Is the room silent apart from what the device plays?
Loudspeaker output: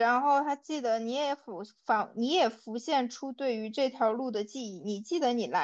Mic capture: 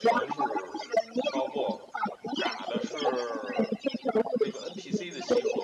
No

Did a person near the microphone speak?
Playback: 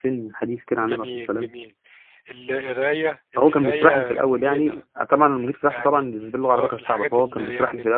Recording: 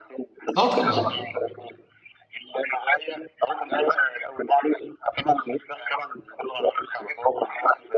Yes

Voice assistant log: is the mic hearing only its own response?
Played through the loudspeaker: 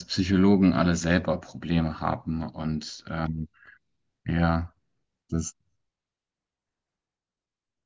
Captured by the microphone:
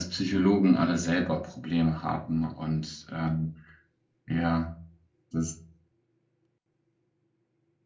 Yes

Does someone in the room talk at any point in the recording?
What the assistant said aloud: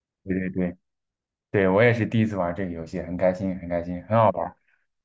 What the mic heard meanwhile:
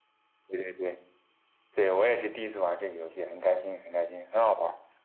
No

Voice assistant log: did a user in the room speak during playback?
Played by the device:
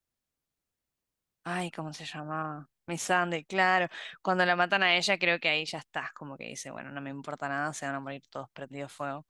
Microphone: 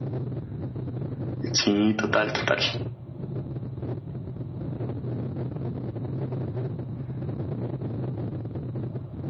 Yes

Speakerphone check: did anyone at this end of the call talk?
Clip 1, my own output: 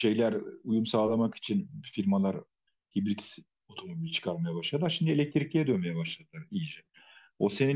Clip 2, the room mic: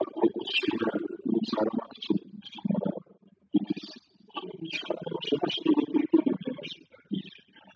No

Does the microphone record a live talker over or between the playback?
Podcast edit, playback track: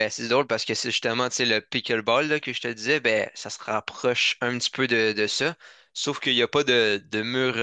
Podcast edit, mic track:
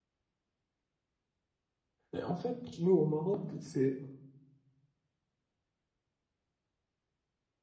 Yes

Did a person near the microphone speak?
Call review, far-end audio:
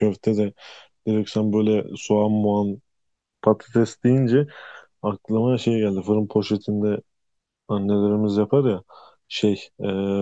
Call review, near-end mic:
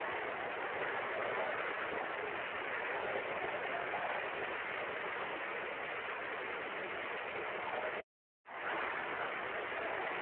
No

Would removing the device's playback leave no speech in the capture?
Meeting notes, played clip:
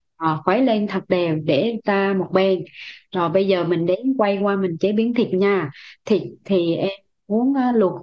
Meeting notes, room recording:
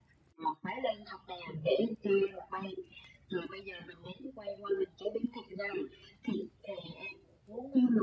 Yes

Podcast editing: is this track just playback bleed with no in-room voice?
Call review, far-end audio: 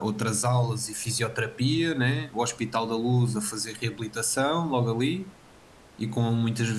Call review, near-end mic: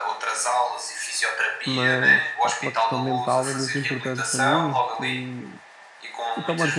No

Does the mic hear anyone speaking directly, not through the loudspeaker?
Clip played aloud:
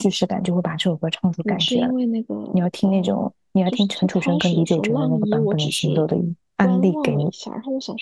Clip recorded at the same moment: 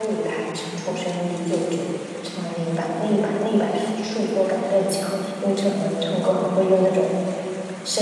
Yes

